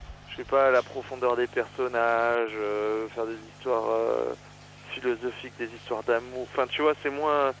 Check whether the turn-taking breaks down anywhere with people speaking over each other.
No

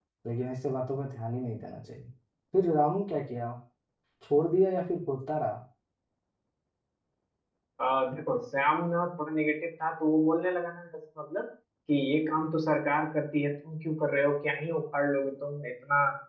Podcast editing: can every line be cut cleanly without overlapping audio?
Yes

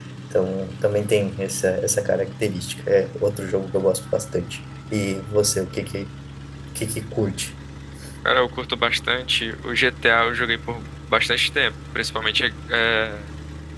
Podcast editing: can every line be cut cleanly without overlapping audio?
Yes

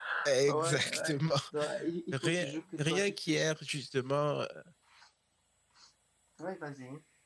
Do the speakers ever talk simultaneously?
Yes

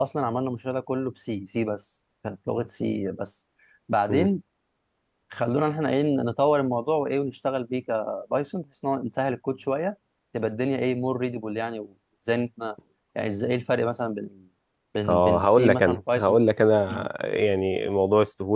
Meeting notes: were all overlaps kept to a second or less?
No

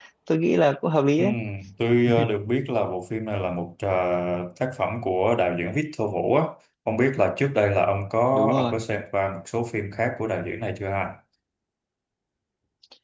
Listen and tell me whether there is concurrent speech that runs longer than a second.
No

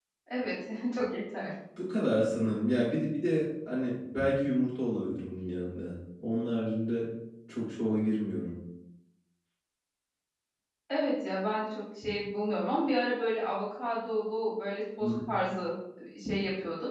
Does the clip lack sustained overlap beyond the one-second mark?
Yes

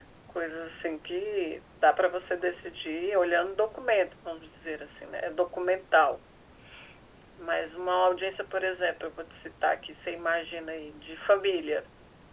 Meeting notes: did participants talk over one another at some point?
No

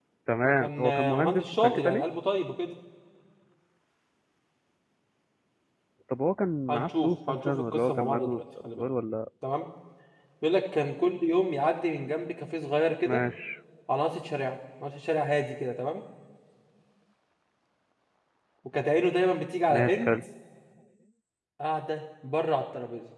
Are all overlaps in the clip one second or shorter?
No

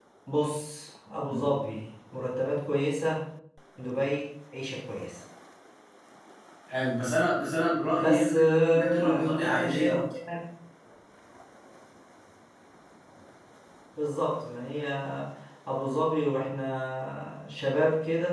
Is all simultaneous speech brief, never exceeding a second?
No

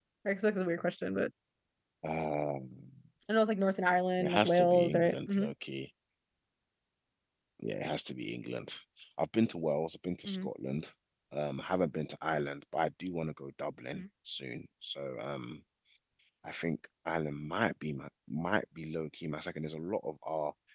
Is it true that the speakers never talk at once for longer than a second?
No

